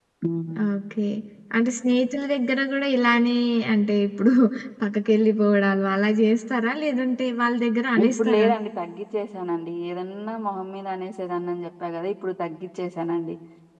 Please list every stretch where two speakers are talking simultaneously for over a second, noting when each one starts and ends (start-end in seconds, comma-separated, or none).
none